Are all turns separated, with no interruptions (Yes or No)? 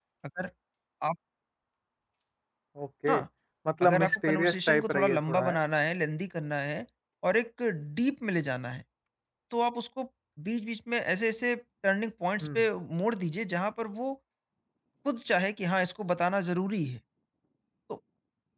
No